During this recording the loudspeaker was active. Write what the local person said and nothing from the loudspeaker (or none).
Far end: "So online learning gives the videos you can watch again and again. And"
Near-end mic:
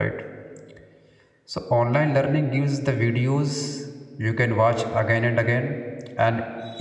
none